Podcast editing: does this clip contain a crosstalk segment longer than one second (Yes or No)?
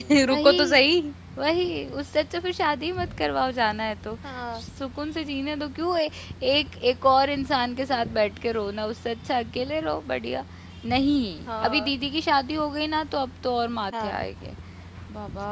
No